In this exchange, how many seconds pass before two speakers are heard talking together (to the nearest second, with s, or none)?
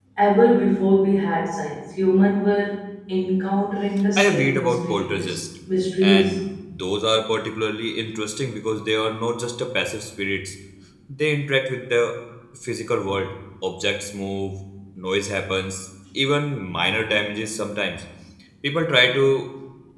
4 s